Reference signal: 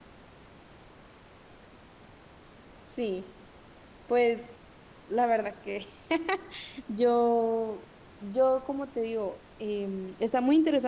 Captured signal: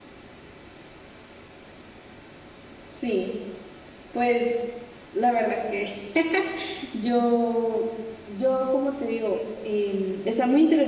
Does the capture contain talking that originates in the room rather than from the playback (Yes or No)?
No